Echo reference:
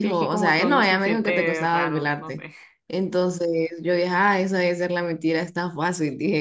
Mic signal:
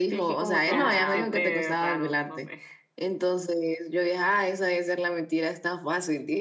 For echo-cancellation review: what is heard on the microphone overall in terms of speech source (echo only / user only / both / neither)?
both